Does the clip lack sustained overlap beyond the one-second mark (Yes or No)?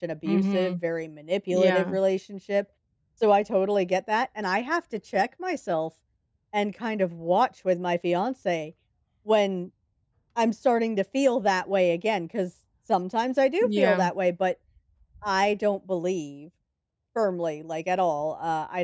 Yes